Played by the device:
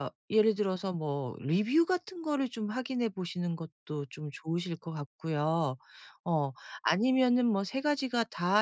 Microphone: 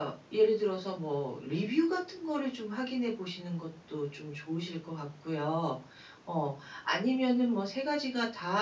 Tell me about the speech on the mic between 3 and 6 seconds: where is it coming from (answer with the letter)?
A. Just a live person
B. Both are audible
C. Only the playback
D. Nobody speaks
C